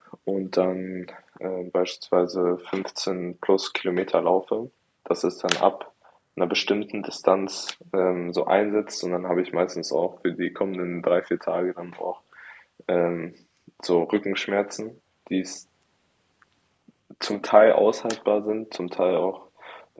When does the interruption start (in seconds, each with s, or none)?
none